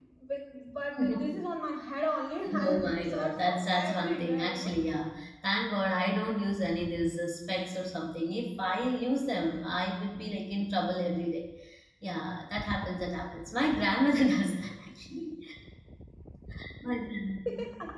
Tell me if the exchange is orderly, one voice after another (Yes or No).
No